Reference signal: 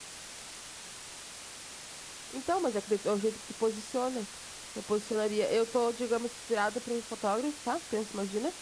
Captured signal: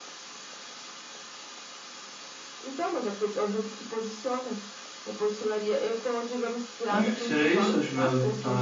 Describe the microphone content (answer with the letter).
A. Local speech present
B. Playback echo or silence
A